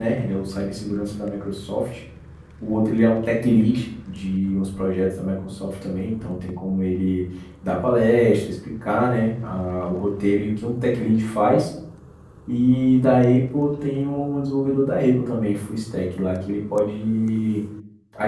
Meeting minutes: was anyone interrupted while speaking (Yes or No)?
No